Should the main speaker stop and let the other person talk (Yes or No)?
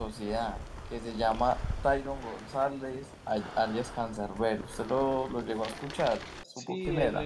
Yes